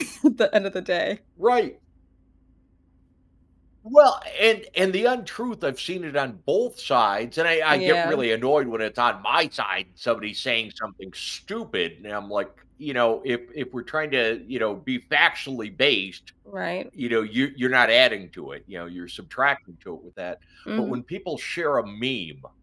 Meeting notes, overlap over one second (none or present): none